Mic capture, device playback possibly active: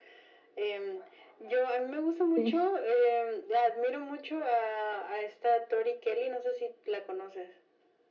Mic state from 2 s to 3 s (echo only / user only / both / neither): both